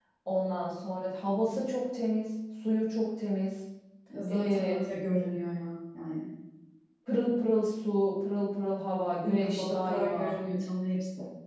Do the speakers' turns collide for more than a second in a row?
Yes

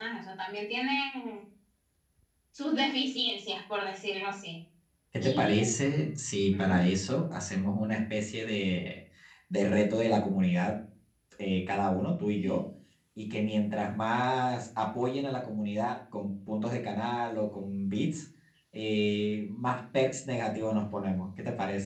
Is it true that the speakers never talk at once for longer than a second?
Yes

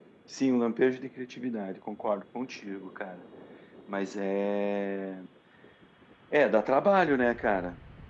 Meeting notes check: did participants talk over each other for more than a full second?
No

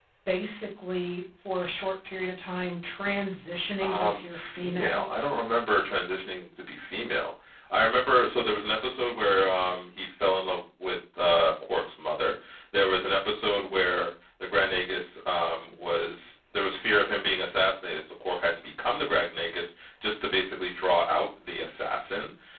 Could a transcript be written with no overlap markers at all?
No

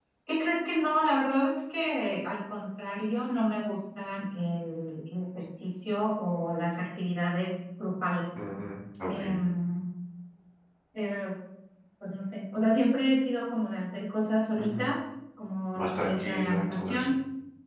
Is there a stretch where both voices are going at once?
Yes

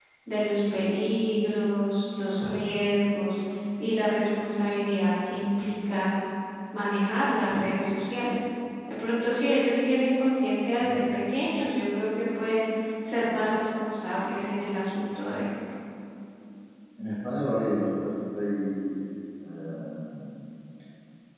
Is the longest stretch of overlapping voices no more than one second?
Yes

